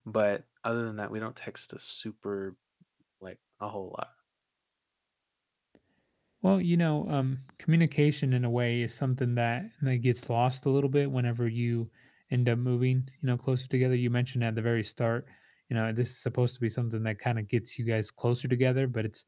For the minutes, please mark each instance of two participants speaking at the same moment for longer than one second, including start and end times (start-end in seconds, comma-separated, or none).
none